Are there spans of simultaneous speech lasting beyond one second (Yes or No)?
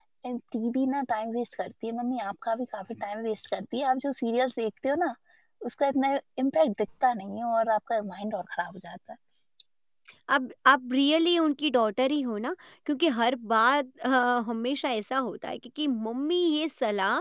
No